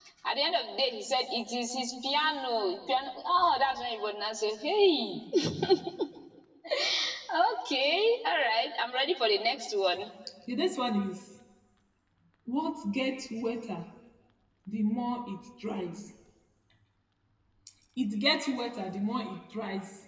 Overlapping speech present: No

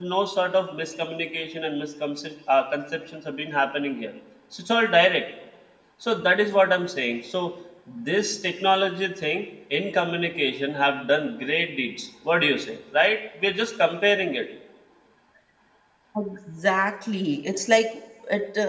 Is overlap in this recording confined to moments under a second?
Yes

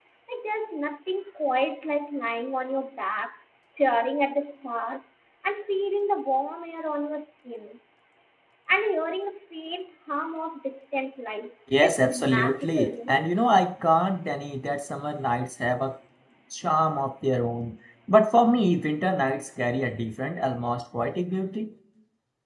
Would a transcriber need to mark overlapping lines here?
Yes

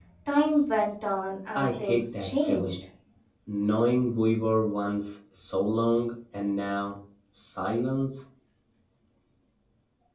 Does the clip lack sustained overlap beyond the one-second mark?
No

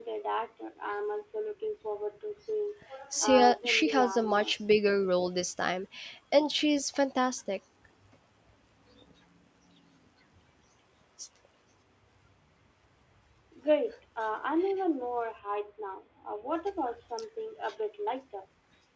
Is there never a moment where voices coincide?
No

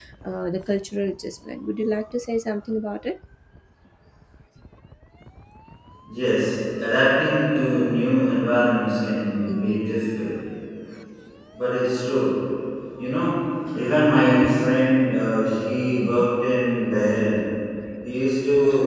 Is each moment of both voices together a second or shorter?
Yes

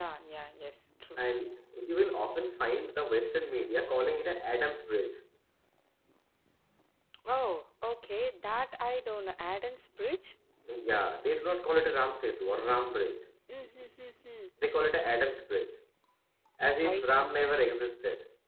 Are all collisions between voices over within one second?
Yes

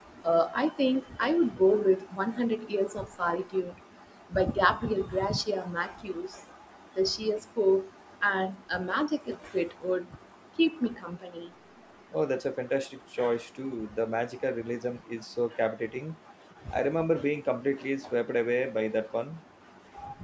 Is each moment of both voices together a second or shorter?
Yes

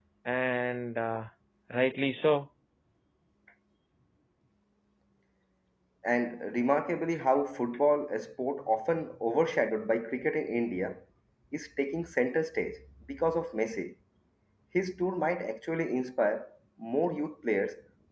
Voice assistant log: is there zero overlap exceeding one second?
Yes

